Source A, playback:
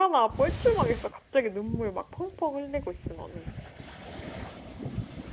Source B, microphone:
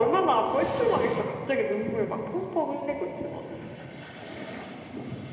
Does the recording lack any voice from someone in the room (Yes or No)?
Yes